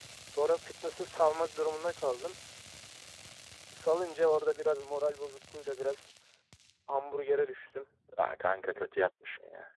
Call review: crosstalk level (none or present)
none